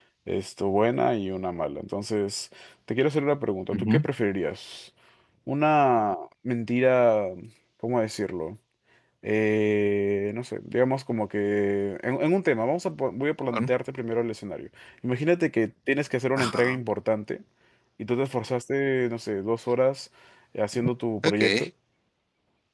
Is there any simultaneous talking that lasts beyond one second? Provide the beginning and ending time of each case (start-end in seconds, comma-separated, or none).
none